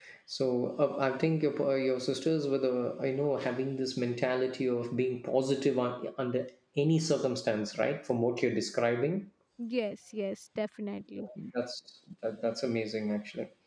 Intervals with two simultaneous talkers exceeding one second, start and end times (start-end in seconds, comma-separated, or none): none